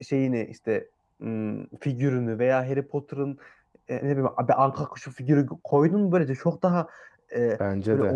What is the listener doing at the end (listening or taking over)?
listening